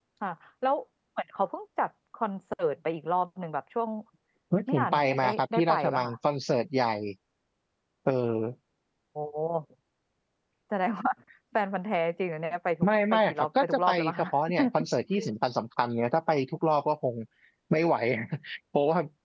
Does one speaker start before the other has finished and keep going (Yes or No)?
Yes